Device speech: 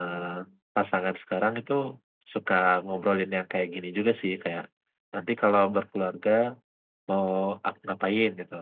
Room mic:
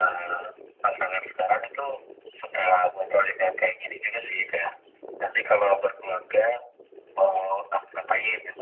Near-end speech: none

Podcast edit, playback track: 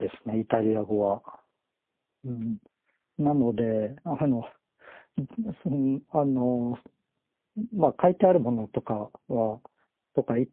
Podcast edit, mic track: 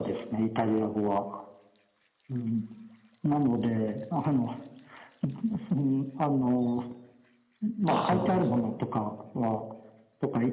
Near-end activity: present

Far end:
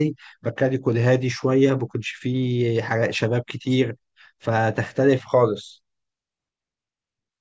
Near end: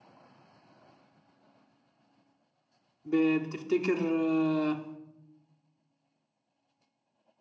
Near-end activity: present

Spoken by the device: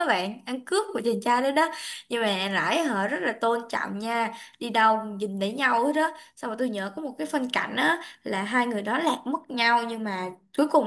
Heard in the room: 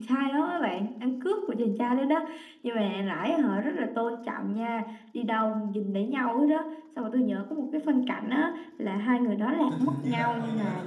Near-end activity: present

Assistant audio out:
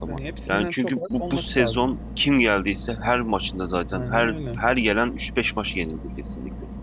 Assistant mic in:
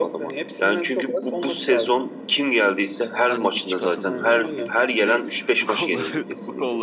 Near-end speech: present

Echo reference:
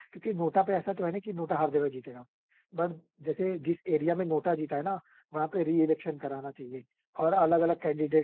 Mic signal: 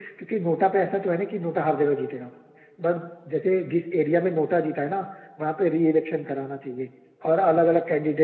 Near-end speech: none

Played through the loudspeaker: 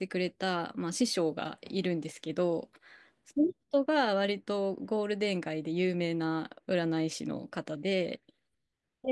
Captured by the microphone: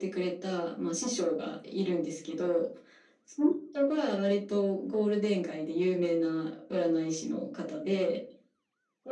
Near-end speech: none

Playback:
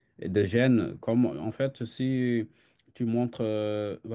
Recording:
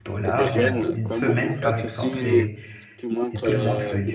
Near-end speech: present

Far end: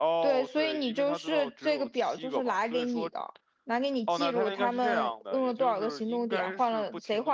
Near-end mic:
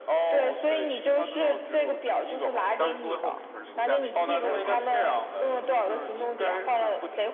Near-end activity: present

